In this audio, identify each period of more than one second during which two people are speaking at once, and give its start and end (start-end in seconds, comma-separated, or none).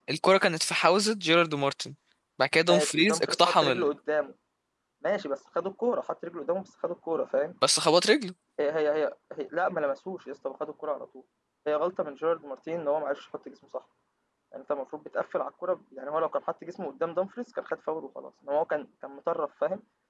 2.7-3.9